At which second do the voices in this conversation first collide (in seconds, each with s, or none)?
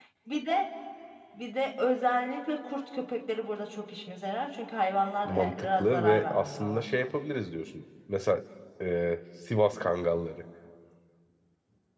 5.2 s